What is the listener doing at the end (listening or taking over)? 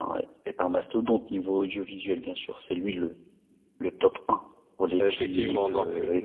taking over